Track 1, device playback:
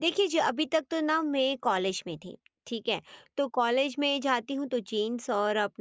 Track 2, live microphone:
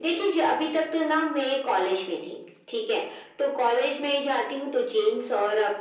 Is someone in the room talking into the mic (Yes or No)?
No